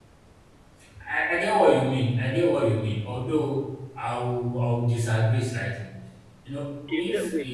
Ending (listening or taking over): taking over